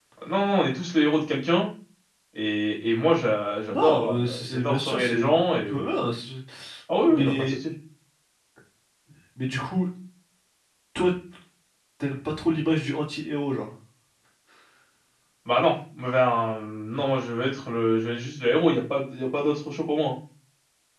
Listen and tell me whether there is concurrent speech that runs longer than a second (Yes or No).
Yes